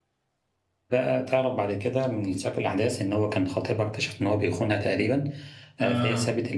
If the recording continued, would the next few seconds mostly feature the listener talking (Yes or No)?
No